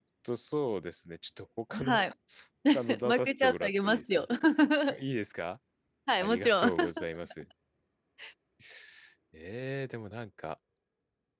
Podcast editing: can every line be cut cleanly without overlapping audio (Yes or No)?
No